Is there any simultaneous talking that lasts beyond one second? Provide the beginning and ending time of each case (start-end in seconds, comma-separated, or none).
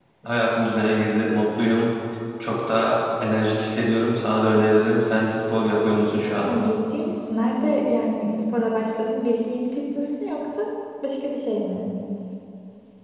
none